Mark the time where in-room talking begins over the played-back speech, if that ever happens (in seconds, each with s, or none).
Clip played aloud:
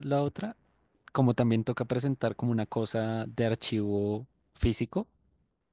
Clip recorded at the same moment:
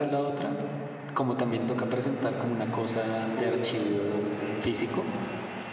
3.3 s